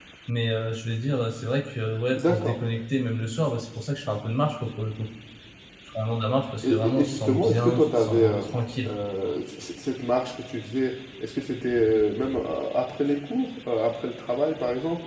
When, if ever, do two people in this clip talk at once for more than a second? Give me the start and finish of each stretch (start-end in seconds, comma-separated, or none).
6.6-8.4